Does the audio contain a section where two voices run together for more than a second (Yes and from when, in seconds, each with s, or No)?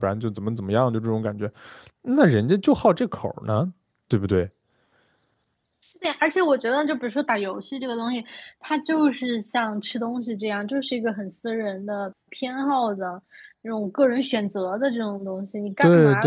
No